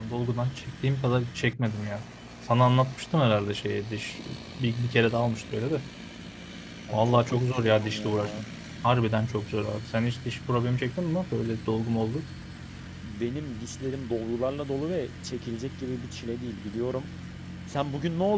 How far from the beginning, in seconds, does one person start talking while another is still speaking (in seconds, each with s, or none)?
6.9 s